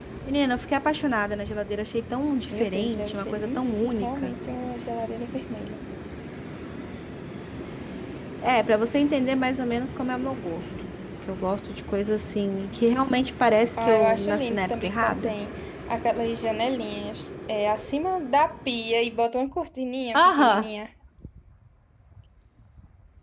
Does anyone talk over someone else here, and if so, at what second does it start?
2.5 s

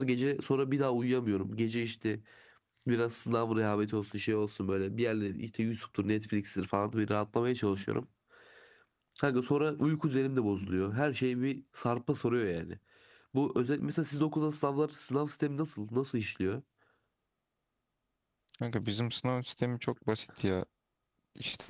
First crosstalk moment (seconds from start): none

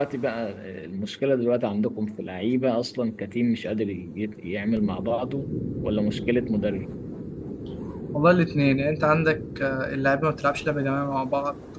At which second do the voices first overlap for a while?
none

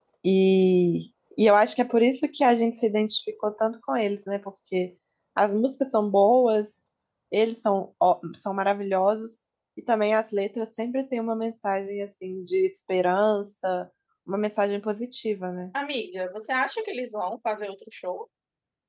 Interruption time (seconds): none

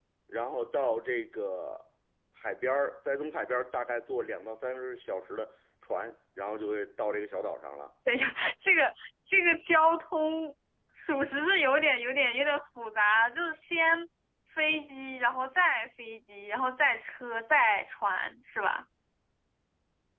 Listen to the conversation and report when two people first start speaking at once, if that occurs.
none

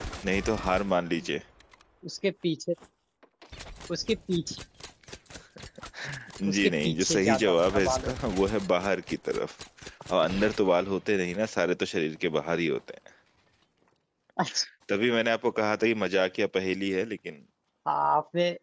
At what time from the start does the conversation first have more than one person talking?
6.5 s

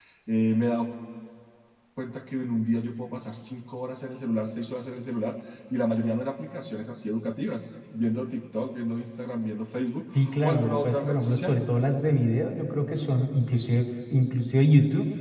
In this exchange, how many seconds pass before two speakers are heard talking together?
10.1 s

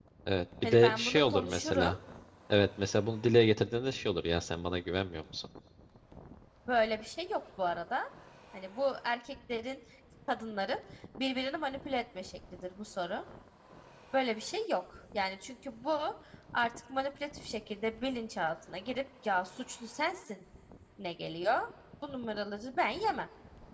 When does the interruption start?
0.6 s

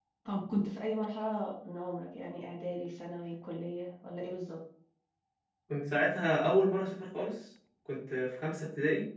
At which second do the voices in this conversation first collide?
none

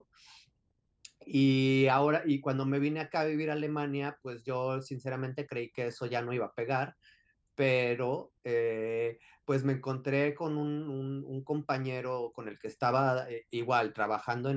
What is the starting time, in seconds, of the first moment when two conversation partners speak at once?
none

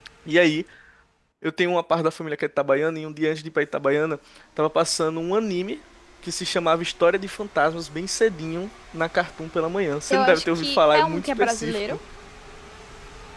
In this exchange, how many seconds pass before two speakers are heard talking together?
10.1 s

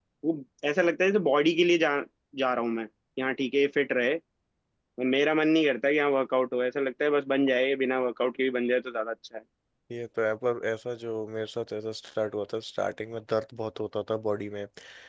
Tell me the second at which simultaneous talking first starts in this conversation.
none

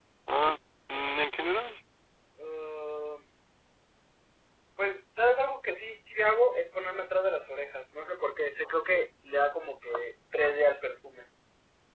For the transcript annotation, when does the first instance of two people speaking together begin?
none

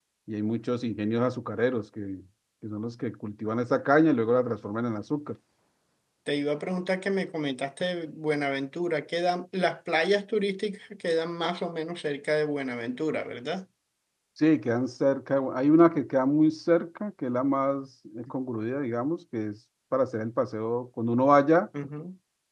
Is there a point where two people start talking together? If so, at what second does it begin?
none

